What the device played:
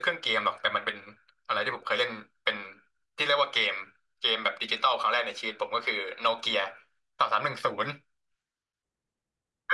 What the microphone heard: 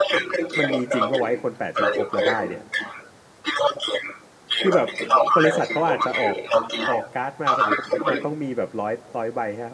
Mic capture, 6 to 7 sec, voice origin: both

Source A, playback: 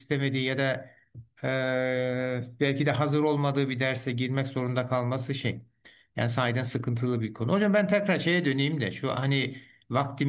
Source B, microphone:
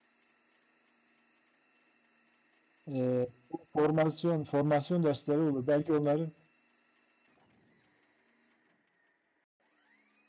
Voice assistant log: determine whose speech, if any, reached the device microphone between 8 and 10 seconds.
neither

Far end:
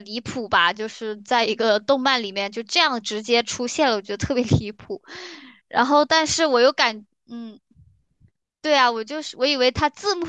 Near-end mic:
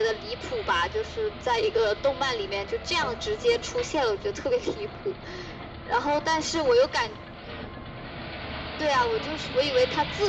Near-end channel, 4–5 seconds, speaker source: echo only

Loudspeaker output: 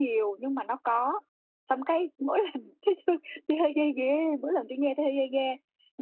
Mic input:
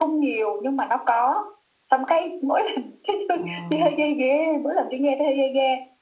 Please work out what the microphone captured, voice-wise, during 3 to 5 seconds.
both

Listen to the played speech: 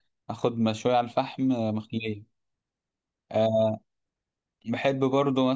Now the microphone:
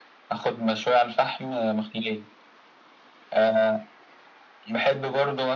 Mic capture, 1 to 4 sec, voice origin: echo only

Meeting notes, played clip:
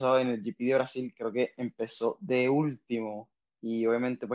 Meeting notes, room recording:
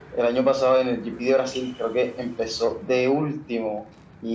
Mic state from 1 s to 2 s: echo only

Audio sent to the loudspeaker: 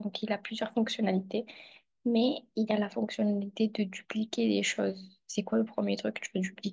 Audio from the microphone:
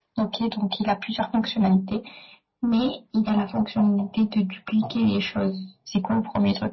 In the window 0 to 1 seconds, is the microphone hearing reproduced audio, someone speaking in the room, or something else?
echo only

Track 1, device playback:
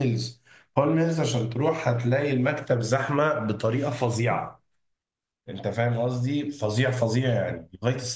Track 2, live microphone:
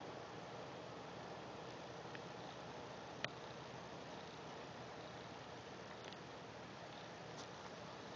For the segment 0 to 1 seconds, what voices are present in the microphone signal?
neither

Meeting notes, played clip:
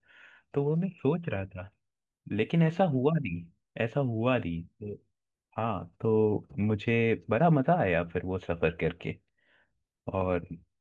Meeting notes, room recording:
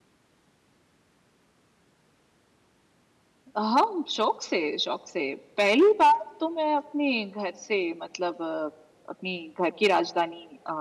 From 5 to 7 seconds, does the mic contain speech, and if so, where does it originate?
user only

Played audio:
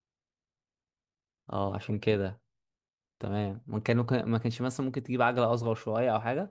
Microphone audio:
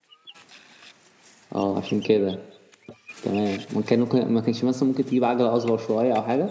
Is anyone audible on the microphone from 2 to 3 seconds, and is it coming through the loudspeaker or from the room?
echo only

